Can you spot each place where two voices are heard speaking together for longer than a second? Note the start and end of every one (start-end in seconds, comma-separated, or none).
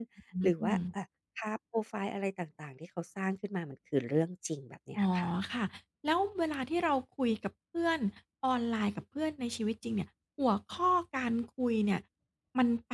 none